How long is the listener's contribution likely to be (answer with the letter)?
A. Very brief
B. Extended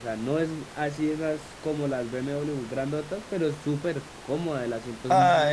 B